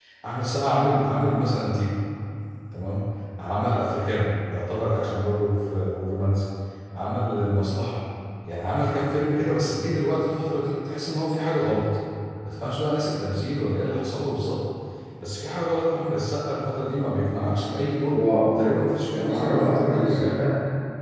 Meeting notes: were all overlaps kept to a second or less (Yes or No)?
No